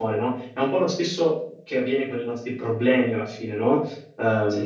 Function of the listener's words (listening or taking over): listening